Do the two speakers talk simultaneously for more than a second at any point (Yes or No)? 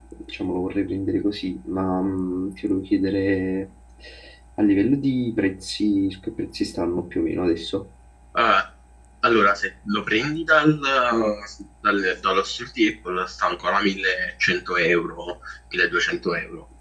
No